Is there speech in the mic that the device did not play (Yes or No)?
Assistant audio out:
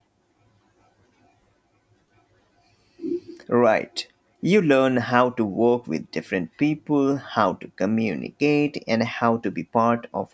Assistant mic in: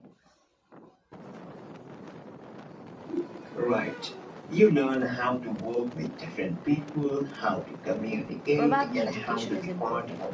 Yes